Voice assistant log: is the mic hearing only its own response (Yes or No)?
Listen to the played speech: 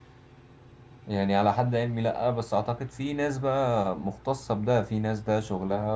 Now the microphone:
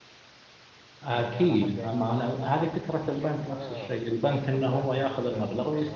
No